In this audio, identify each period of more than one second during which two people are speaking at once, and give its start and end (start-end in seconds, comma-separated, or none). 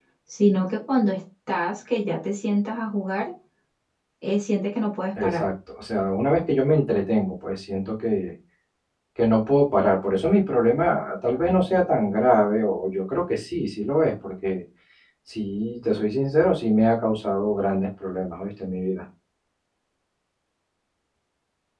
none